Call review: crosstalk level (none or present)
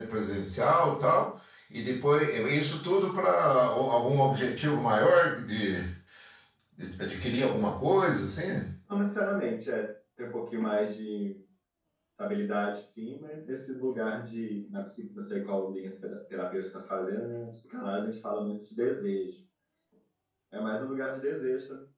none